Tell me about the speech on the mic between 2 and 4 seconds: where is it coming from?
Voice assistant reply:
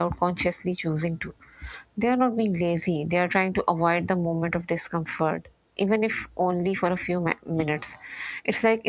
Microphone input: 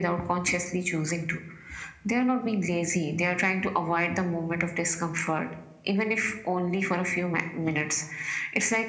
echo only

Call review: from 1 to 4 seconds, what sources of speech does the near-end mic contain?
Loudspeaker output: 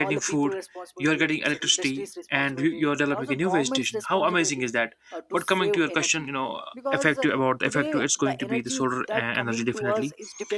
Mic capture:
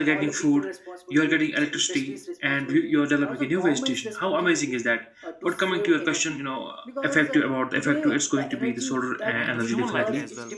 echo only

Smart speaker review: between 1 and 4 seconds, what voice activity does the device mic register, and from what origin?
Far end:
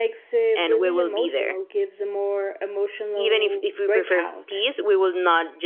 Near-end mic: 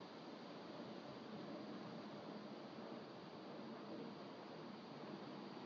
neither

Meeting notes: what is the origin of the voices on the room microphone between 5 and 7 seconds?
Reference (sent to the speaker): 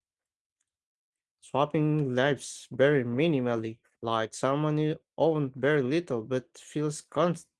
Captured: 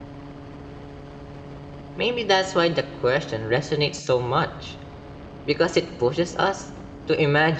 user only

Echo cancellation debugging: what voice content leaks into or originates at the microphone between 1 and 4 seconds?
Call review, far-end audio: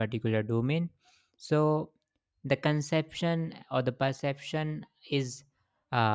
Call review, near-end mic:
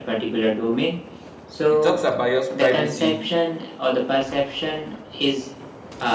both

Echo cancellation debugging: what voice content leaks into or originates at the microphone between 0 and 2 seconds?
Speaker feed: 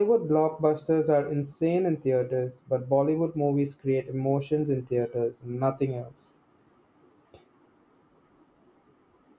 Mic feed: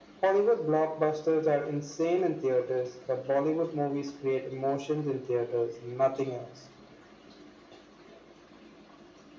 echo only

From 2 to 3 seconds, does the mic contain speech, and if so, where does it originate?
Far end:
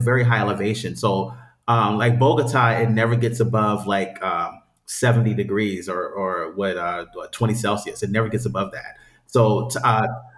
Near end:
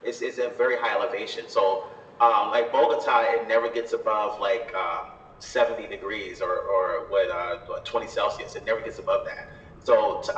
echo only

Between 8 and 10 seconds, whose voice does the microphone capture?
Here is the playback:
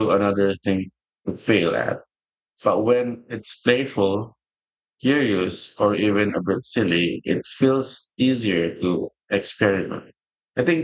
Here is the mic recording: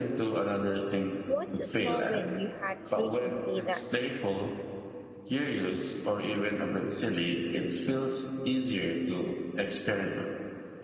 echo only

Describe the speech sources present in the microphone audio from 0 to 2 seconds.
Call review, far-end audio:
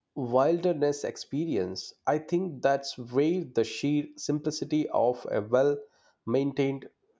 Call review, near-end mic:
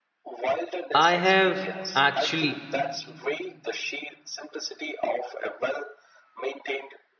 both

